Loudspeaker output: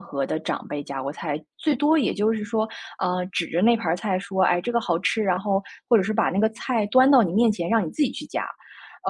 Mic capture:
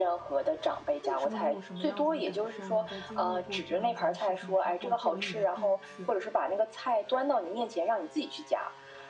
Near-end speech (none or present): present